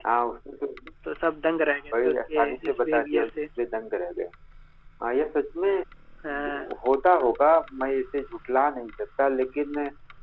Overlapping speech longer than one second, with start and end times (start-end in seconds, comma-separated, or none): 2.0-3.3